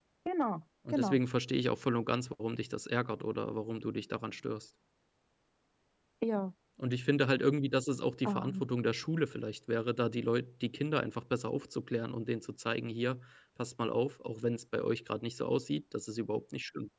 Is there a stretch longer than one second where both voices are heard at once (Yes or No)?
No